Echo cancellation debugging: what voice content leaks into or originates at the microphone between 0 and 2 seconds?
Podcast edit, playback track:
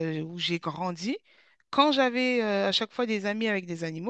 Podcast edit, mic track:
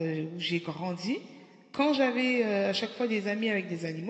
echo only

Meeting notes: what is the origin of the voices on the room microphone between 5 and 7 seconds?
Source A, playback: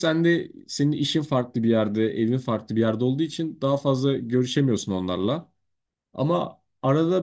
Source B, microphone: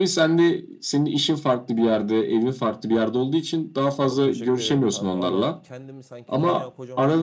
both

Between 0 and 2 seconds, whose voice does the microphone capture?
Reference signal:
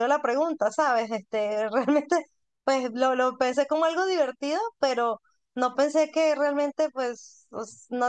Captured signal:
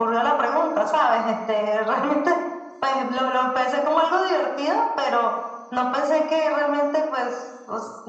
echo only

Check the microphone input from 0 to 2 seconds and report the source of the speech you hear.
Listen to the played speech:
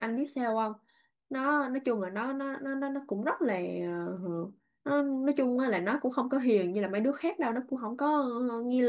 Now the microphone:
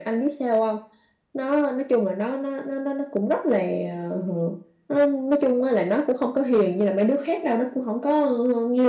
echo only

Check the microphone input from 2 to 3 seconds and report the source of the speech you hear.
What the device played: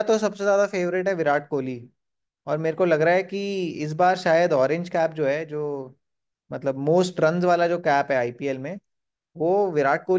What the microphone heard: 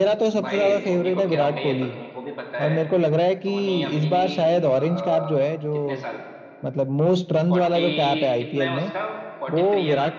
both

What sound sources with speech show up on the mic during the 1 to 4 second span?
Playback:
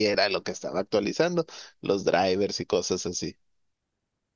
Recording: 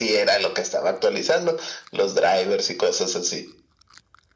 echo only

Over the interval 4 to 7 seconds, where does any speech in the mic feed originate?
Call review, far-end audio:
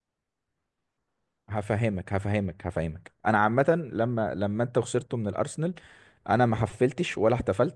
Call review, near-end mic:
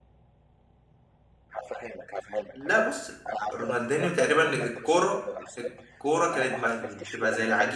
both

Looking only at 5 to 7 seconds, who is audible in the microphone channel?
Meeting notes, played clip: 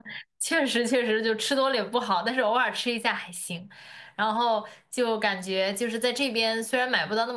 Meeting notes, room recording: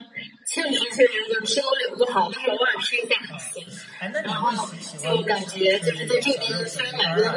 both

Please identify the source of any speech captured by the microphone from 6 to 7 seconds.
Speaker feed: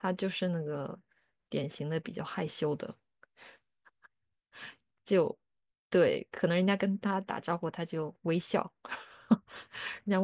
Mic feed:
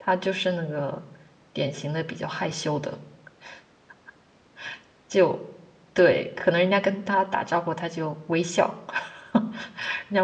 echo only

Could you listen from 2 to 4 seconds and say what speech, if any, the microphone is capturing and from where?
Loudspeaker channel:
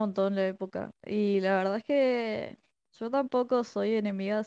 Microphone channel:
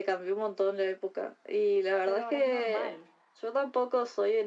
both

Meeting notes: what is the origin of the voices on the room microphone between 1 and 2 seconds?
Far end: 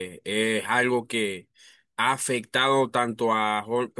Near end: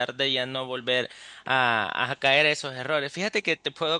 user only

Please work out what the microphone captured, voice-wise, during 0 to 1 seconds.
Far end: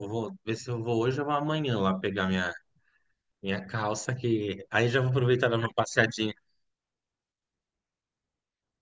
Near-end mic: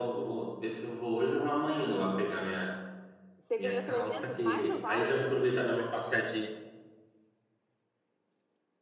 echo only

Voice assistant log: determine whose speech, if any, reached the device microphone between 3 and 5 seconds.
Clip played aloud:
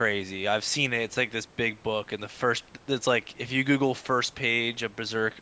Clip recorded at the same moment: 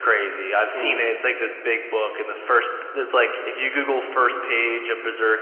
echo only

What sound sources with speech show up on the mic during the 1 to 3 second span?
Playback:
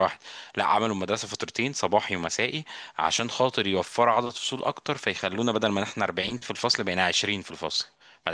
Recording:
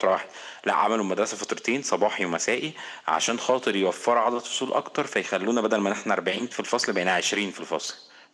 echo only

